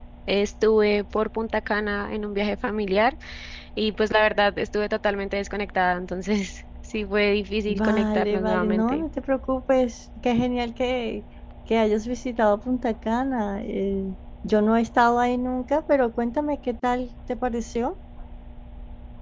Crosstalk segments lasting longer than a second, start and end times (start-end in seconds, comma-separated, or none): 7.7-9.0